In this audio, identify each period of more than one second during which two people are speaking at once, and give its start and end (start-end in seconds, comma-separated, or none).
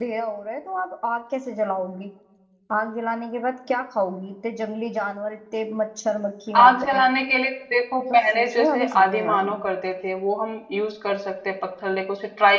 8.0-9.5